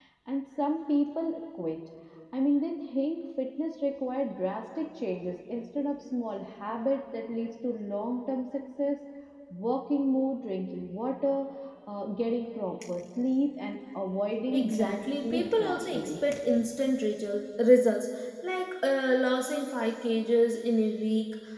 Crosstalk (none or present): present